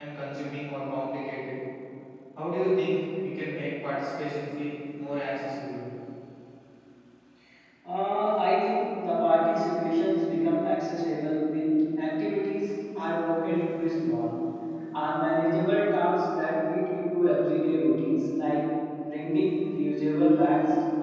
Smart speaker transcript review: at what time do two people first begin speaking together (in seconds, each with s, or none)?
none